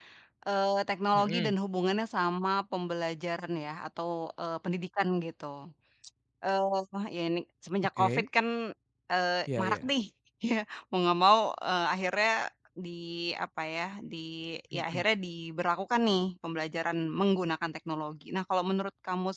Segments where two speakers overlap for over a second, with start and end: none

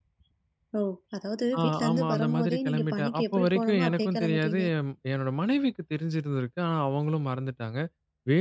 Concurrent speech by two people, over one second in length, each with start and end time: 1.6-4.6

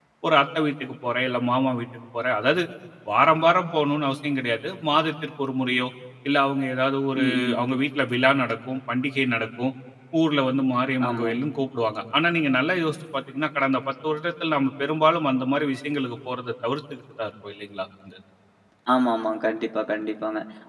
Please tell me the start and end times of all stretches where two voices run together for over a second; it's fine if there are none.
none

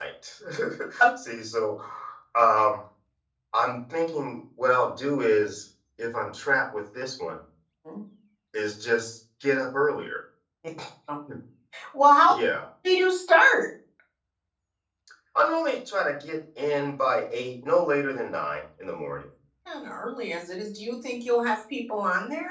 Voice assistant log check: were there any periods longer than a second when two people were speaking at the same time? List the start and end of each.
none

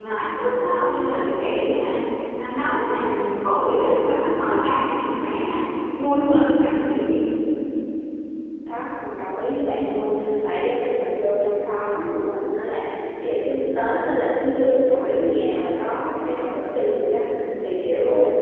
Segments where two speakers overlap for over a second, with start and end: none

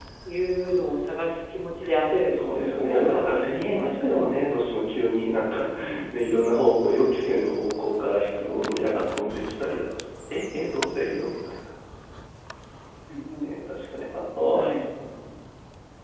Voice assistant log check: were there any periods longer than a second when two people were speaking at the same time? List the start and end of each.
2.3-4.3

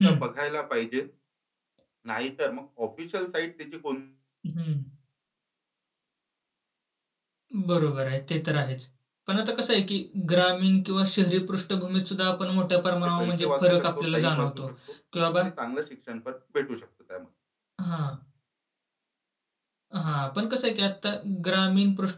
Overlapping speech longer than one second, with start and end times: 13.2-14.5

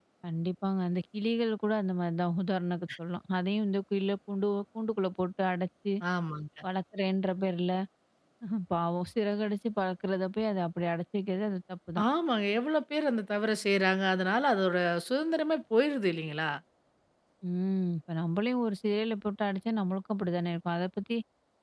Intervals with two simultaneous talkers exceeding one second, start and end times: none

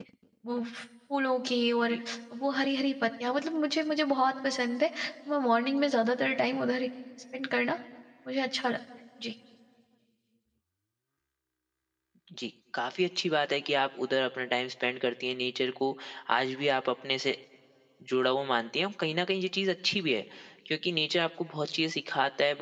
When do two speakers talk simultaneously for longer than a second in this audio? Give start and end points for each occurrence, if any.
none

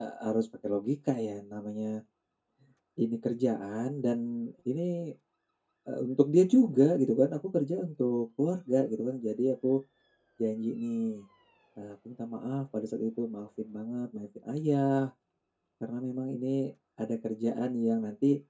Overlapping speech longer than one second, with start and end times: none

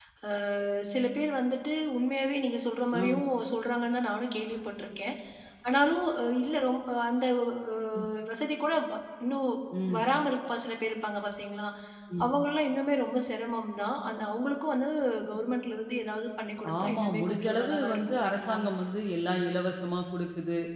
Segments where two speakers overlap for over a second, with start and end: 16.8-18.6

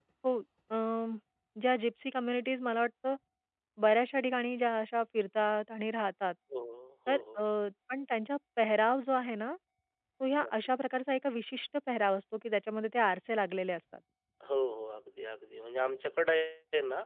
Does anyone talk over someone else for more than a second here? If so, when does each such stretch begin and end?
none

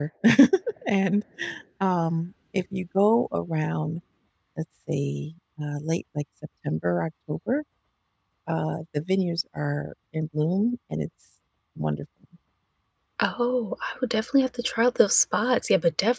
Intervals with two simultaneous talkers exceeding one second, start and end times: none

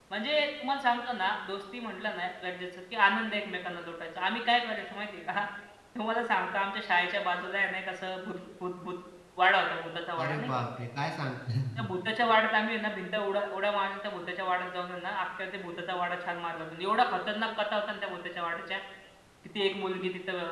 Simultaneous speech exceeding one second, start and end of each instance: none

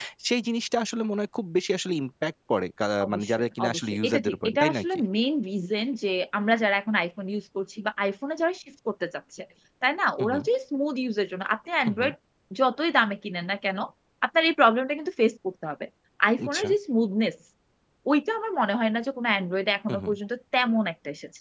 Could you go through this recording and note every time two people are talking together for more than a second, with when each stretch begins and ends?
3.1-4.8

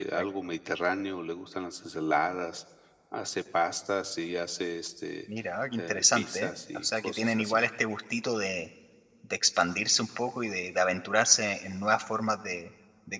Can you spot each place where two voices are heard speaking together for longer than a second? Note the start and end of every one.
5.8-7.6

